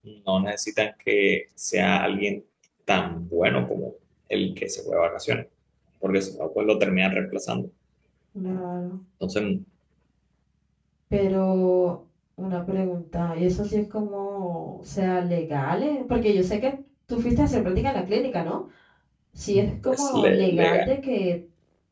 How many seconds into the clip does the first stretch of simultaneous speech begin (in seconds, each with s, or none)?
19.5 s